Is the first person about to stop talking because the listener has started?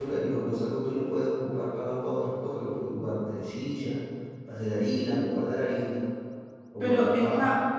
Yes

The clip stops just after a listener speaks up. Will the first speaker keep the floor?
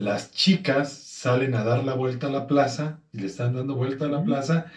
Yes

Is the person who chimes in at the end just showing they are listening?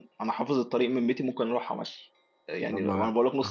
Yes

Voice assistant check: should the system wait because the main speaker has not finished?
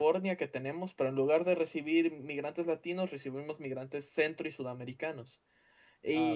Yes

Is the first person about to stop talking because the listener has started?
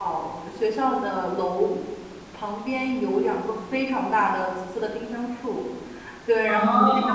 No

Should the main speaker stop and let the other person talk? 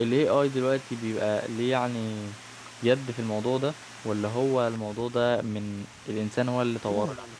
Yes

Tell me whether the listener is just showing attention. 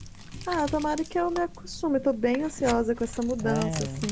Yes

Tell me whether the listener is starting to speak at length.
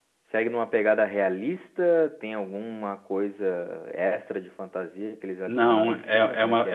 Yes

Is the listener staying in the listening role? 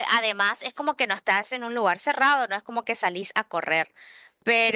Yes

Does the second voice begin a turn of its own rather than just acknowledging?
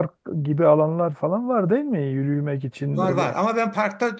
Yes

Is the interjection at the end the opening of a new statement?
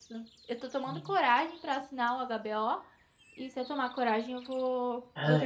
Yes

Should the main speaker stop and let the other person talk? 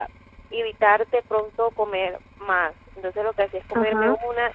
No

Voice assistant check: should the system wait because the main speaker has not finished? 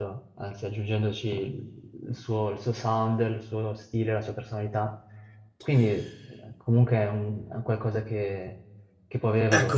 No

